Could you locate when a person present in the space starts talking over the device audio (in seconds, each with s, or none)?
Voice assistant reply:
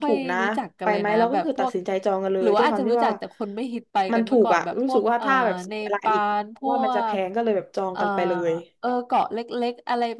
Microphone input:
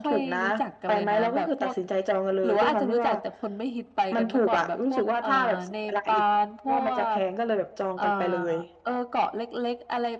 none